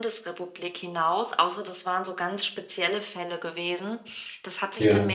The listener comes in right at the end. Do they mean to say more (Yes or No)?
No